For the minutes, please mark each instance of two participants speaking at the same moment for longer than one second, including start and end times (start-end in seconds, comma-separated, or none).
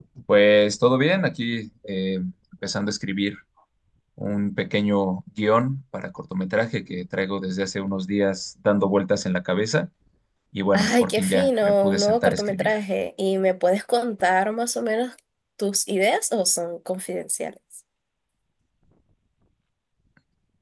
10.7-12.7